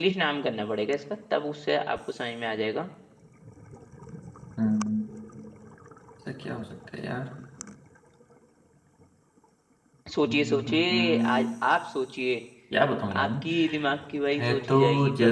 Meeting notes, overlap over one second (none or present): present